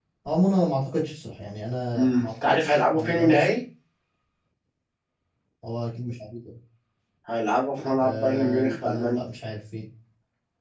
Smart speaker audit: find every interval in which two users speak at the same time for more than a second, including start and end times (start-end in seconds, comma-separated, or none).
2.0-3.5, 8.0-9.2